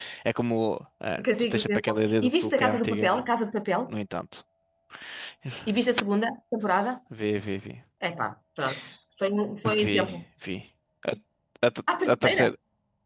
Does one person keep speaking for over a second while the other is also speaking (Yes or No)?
Yes